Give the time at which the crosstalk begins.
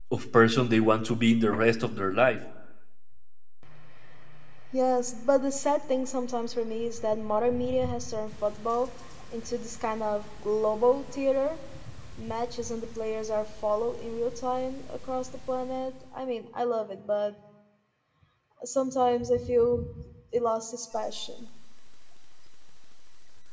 none

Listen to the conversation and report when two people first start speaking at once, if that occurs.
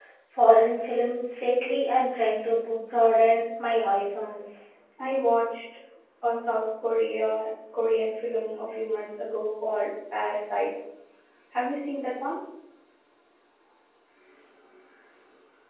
none

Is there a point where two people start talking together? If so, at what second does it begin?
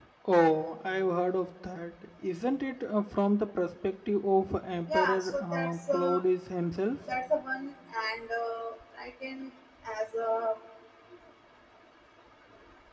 4.9 s

